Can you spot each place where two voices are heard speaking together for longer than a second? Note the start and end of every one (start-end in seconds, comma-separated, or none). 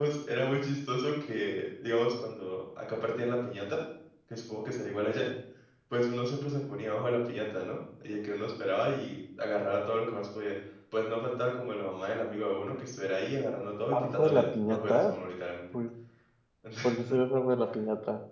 13.9-15.1